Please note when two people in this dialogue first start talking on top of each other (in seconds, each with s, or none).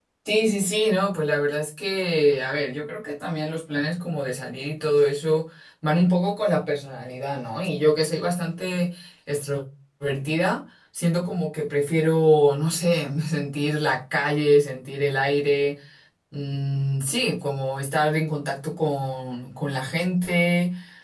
none